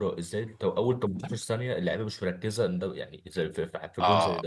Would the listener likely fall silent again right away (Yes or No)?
No